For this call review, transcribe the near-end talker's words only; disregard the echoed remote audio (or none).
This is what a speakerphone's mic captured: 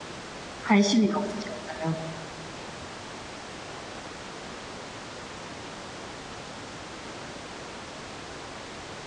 관심이 없으셨어요?